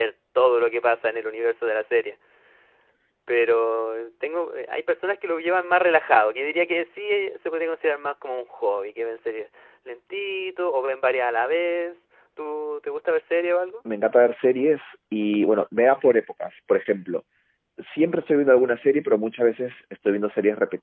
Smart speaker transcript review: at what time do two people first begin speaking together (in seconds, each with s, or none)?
none